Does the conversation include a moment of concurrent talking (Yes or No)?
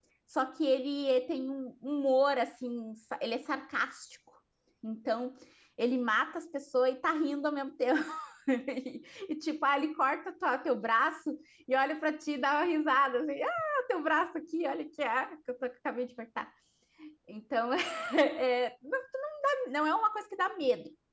No